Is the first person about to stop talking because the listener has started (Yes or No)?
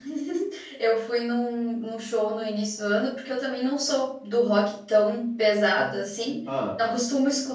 No